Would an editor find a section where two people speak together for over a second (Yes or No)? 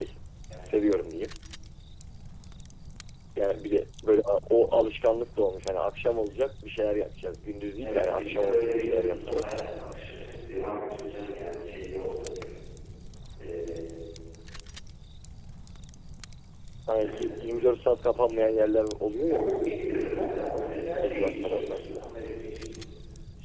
Yes